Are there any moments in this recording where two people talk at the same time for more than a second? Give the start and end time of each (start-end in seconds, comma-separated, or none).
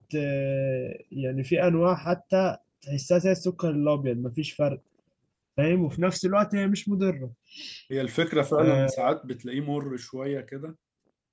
none